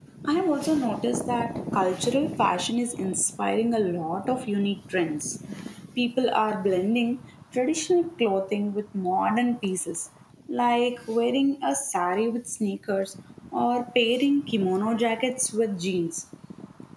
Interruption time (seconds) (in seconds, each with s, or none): none